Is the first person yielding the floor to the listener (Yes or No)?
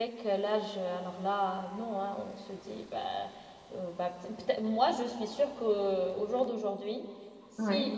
No